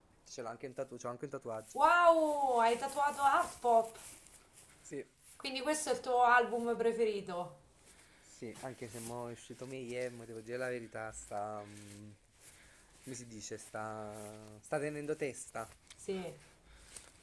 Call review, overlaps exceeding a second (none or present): none